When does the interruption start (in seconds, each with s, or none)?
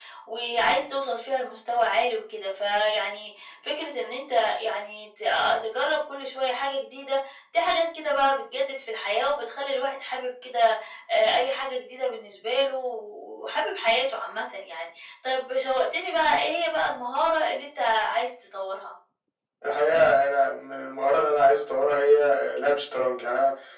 none